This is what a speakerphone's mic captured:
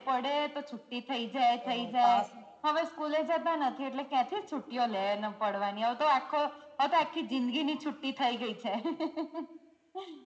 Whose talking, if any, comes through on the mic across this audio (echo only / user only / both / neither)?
both